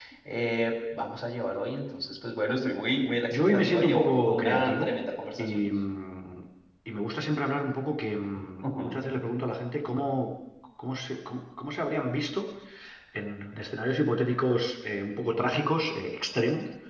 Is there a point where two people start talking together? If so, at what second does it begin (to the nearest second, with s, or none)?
3 s